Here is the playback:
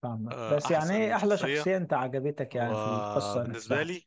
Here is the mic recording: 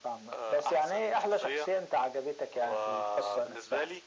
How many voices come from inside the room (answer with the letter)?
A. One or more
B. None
B